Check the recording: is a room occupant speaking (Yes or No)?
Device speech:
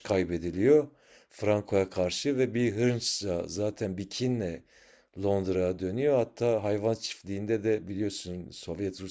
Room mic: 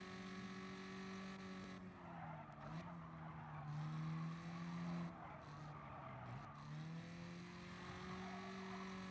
No